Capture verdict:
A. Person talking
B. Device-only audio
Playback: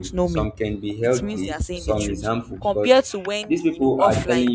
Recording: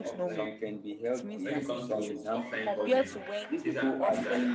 A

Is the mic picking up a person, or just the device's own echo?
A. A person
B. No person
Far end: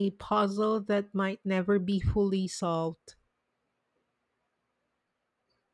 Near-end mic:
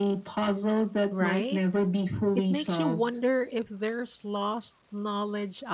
A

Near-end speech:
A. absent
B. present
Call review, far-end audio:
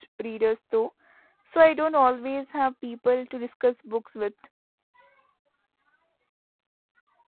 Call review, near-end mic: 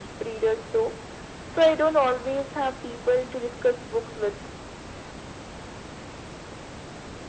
A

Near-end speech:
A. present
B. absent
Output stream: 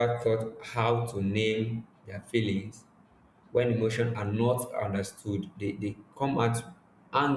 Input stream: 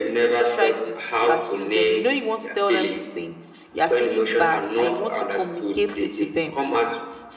A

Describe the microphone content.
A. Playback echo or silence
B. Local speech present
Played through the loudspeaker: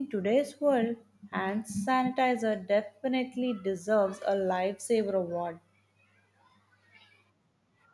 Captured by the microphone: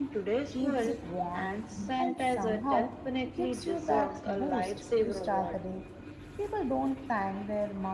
B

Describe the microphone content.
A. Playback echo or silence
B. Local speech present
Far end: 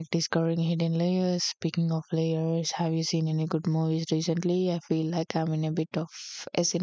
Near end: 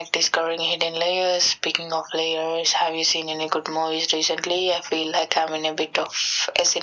A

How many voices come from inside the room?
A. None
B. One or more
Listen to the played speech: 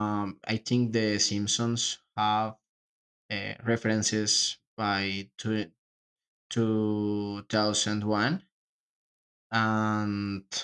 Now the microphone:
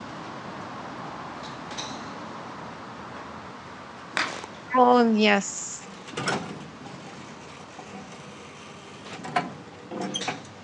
B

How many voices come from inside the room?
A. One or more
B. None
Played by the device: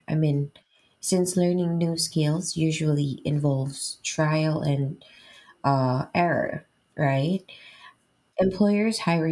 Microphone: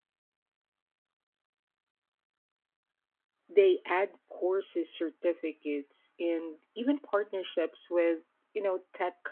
A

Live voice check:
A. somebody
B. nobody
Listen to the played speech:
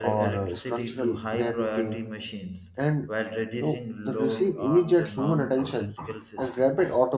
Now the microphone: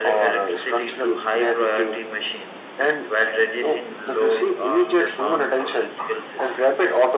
B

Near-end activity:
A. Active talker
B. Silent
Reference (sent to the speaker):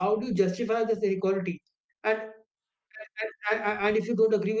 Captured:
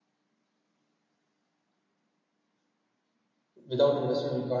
A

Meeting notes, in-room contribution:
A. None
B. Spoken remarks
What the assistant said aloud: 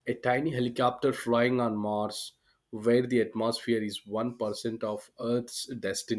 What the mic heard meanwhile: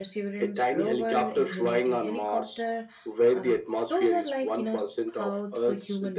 B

